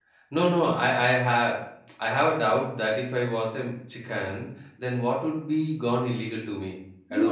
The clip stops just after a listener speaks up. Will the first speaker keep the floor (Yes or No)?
No